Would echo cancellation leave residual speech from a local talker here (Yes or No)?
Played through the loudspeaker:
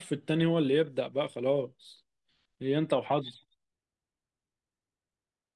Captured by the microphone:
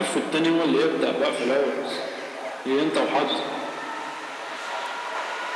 No